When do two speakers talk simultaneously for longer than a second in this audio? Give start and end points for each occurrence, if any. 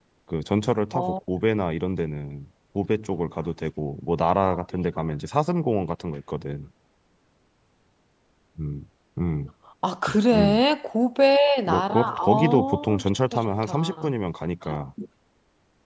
11.7-14.1

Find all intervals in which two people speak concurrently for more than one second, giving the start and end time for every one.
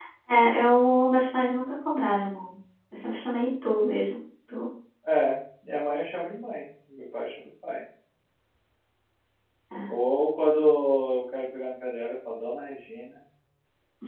none

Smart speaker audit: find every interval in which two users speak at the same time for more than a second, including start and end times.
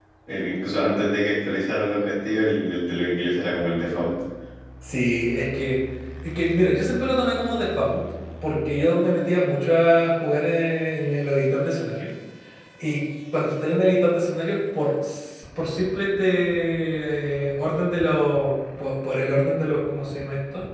none

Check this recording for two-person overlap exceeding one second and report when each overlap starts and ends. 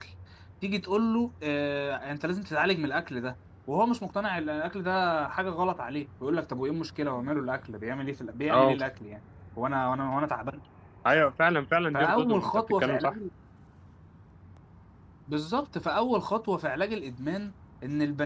11.9-13.2

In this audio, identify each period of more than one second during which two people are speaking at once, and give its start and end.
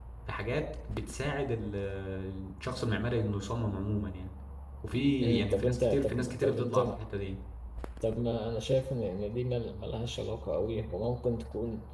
5.4-6.8

